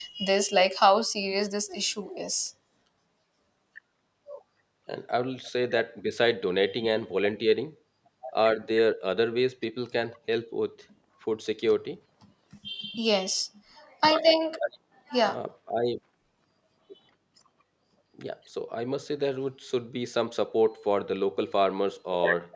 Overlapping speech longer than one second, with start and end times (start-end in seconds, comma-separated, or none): none